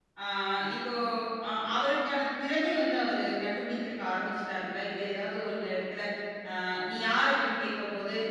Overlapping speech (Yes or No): No